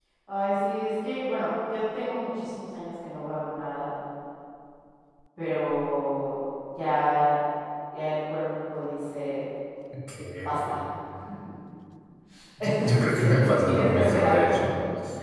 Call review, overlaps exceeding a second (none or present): present